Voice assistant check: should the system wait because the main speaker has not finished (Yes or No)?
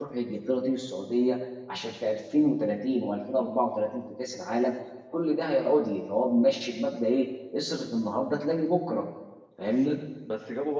No